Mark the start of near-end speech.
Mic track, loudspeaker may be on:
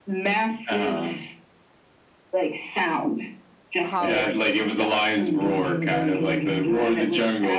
3.8 s

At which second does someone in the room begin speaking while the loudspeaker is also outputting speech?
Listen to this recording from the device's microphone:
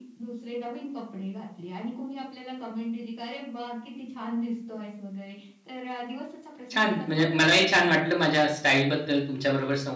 6.7 s

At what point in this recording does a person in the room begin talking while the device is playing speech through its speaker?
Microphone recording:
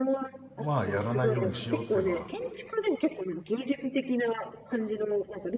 0.6 s

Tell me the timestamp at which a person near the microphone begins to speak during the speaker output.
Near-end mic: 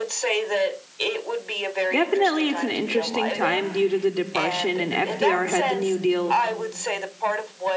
1.9 s

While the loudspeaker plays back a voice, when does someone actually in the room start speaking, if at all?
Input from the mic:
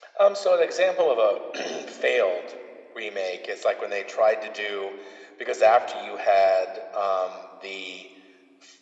none

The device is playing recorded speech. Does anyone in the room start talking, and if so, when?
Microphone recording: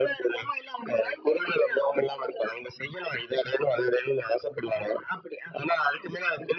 none

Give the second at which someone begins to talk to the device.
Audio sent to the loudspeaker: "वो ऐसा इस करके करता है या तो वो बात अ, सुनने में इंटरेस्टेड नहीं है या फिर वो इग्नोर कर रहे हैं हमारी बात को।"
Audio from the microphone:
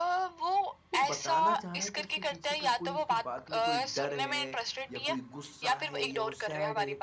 0.9 s

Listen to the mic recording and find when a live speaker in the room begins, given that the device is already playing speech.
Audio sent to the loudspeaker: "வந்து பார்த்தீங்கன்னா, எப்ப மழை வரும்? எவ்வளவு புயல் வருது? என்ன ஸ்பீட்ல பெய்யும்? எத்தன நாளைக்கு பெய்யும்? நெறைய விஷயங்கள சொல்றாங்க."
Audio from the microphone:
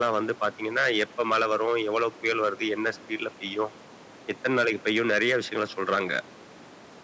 none

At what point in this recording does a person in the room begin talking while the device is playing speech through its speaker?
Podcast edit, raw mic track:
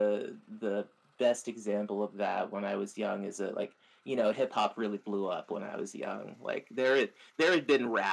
none

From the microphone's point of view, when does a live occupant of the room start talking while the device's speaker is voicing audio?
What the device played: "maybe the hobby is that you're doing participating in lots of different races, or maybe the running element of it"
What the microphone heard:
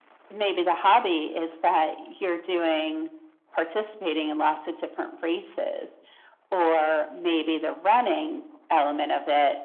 none

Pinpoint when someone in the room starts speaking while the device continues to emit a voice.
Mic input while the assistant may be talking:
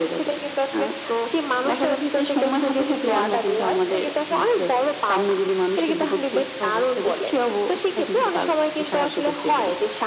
none

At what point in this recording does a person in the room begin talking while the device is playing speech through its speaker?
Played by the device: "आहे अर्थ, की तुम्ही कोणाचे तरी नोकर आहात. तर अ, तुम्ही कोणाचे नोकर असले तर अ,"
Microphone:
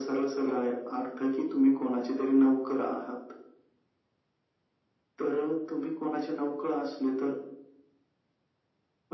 none

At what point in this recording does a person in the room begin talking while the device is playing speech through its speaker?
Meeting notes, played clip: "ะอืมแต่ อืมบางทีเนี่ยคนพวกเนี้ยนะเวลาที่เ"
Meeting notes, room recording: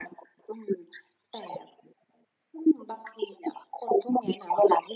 none

